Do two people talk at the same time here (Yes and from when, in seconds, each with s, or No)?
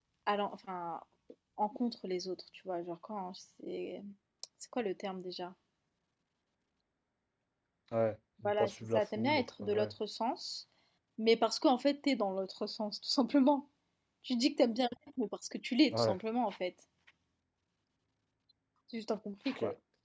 Yes, from 8.4 s